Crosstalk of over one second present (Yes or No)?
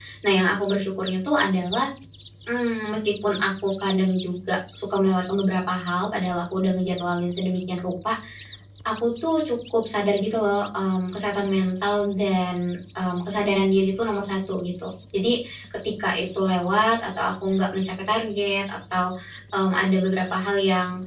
No